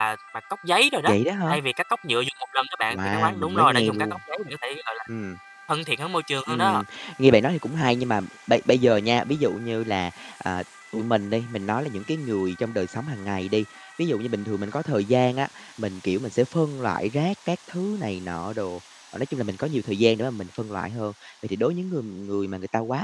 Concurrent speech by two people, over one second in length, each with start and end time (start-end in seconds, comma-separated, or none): 2.9-4.2